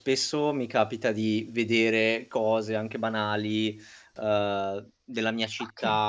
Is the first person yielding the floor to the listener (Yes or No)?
No